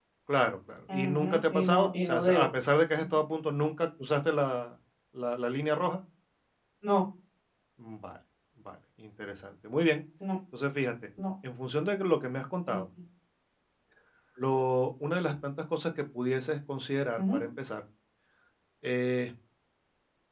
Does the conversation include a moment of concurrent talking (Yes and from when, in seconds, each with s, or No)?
Yes, from 0.9 s